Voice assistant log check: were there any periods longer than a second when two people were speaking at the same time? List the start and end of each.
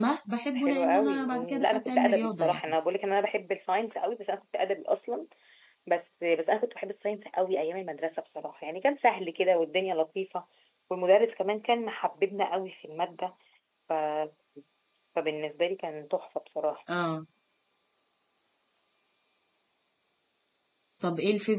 0.6-2.6

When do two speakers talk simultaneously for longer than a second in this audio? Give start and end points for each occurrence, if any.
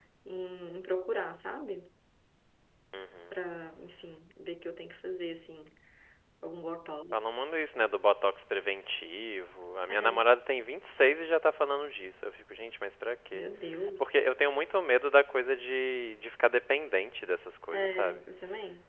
none

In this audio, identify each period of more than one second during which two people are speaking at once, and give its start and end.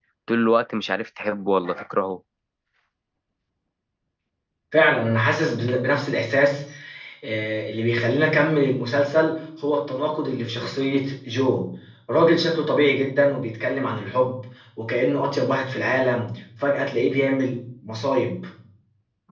none

